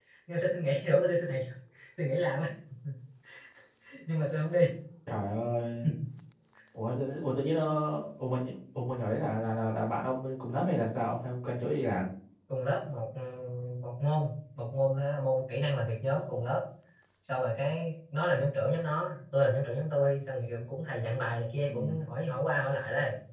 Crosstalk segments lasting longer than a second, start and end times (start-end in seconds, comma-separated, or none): none